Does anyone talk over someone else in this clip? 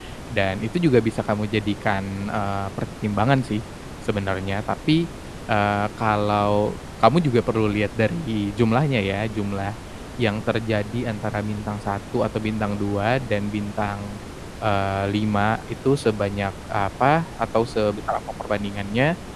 No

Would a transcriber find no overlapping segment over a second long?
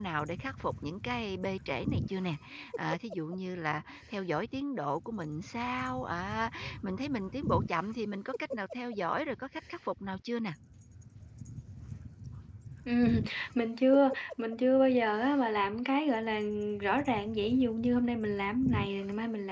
Yes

